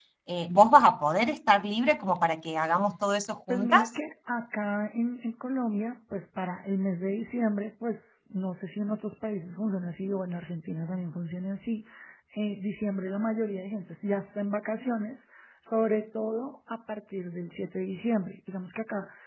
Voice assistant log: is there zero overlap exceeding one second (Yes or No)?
Yes